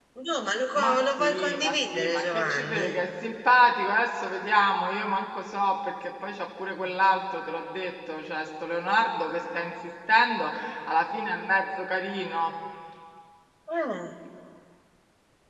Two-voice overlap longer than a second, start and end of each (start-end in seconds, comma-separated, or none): 0.8-2.9